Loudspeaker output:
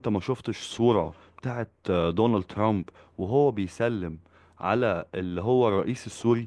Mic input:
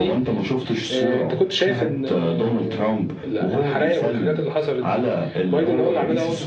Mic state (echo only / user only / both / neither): both